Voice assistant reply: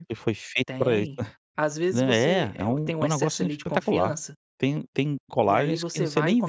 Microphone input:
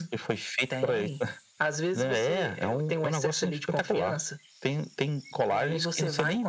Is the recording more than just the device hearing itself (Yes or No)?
No